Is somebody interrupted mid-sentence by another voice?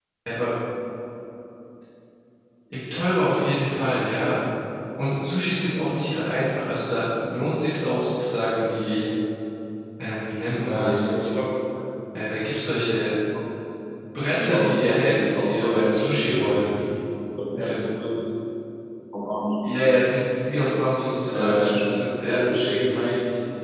Yes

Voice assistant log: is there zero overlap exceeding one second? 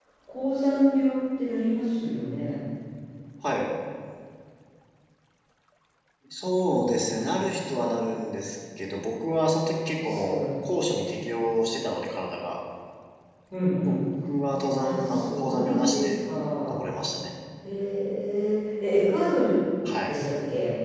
No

